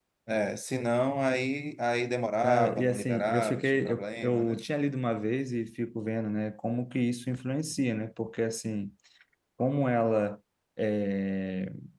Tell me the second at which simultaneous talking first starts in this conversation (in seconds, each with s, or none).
2.4 s